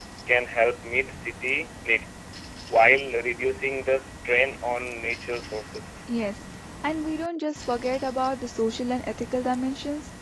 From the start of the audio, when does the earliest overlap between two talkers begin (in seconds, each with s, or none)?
none